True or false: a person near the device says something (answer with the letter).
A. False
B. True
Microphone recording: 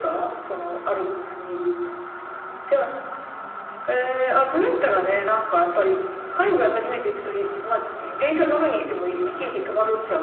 A